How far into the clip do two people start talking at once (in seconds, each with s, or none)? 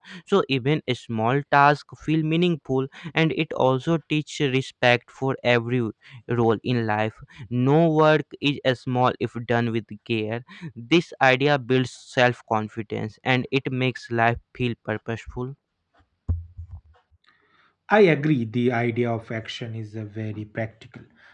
none